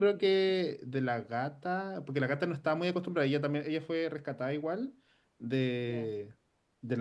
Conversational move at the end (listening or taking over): listening